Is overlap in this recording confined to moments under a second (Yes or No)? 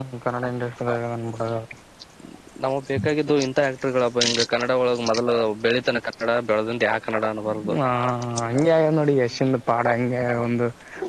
Yes